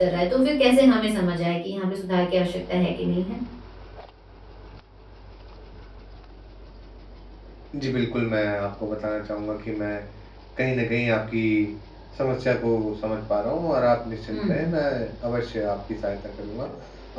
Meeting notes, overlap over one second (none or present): none